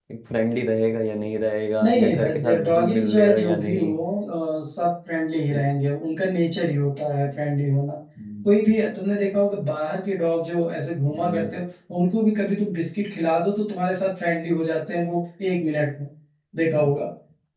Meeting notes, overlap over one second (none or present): present